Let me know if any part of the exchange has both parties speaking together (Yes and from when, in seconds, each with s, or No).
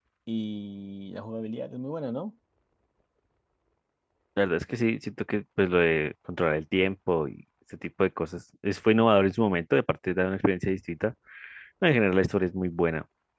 No